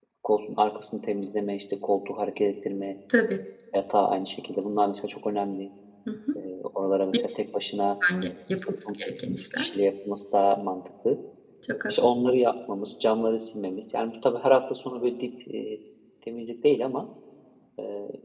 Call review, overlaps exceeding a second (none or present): none